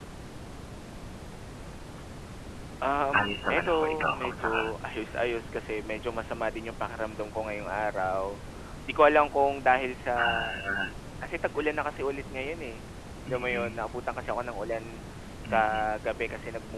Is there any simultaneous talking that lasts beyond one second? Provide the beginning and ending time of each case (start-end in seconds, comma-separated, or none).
3.2-4.6